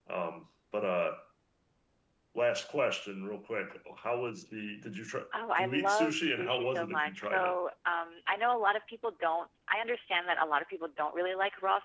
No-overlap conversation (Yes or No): No